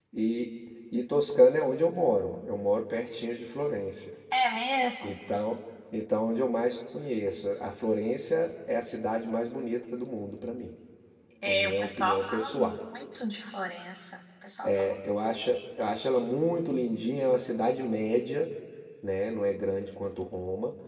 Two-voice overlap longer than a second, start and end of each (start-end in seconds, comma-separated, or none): 11.4-12.8